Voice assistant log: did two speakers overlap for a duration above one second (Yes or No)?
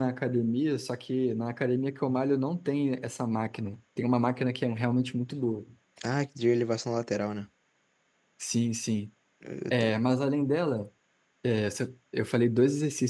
No